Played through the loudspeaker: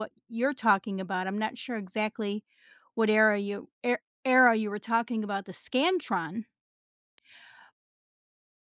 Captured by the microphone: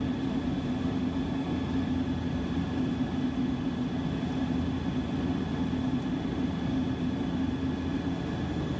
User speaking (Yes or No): No